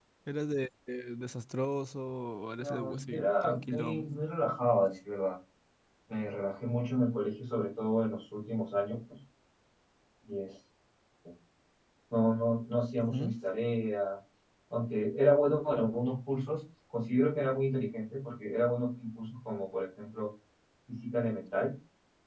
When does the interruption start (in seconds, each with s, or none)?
2.6 s